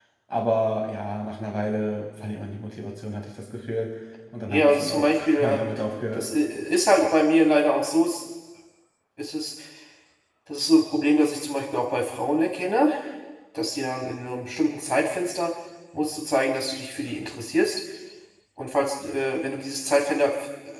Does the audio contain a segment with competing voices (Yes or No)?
Yes